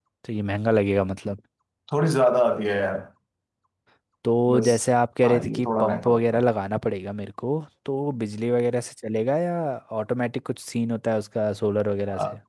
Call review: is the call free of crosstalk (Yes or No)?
No